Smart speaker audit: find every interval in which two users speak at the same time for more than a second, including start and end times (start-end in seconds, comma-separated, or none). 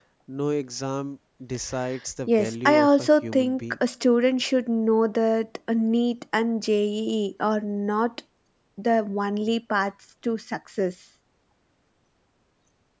2.3-3.8